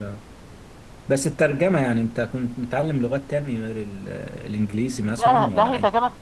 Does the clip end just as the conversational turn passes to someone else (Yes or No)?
Yes